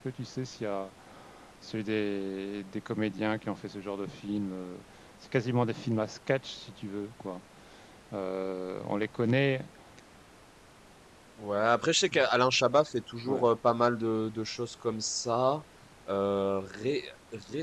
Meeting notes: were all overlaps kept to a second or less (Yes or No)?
Yes